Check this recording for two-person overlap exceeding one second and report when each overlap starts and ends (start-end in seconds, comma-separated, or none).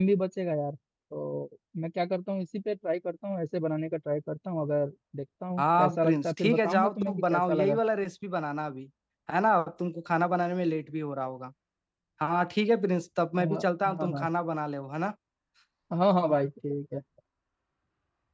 5.6-7.8